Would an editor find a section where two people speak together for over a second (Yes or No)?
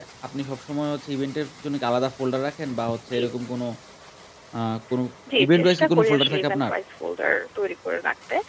Yes